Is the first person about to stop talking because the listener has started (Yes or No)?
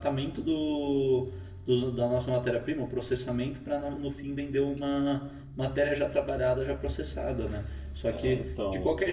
No